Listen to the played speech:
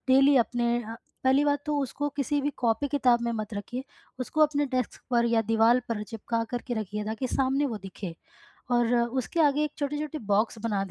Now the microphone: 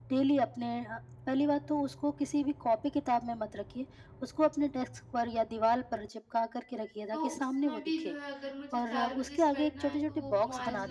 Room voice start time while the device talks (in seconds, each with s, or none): 7.1 s